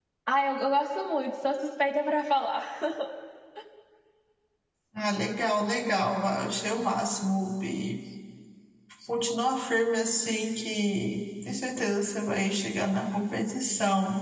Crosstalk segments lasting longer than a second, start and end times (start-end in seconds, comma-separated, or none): none